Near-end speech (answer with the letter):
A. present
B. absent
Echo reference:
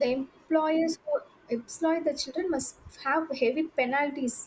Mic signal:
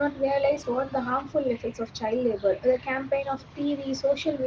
A